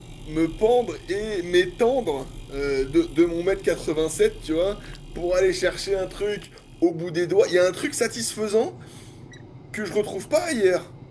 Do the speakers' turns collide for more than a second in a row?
No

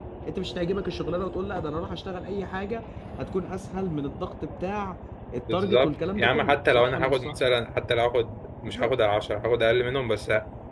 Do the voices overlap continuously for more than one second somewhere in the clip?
Yes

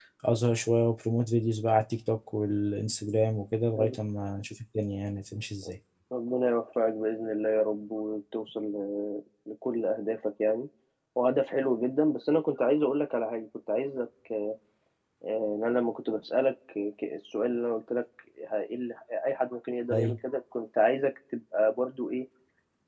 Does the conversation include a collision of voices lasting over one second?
No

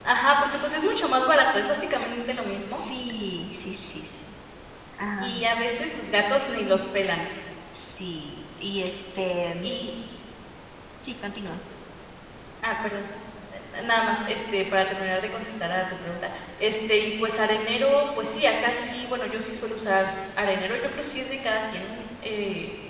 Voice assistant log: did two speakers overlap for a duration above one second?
No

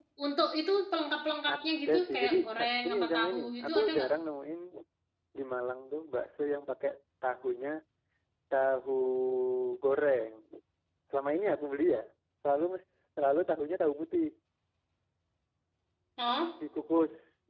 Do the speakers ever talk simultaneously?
Yes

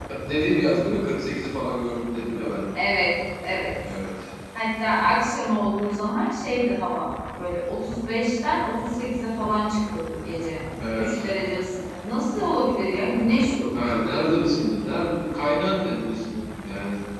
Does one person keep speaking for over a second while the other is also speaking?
No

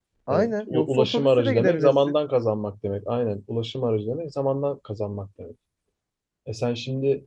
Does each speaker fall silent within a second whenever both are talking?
No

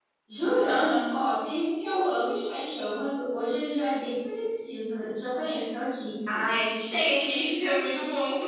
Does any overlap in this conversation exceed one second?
No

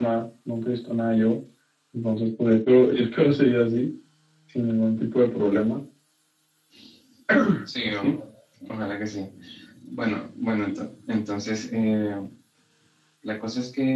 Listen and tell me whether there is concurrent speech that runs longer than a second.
No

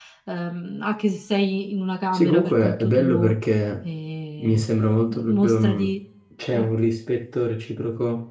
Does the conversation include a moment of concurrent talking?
Yes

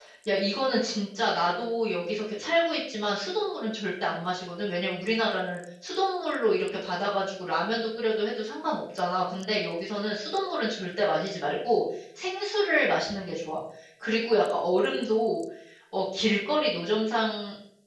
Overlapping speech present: No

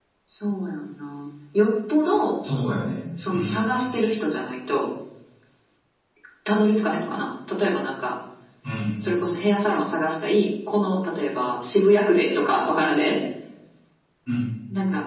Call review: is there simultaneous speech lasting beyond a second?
No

